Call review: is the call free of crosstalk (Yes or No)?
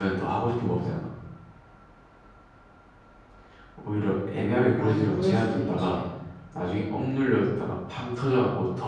No